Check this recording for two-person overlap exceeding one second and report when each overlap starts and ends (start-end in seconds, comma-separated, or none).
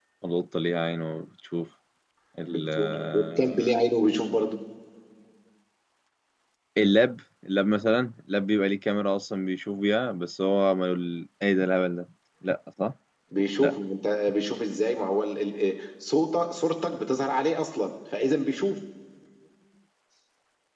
2.5-3.7